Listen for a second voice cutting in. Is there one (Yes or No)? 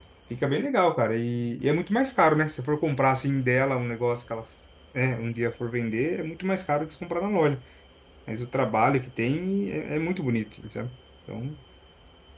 No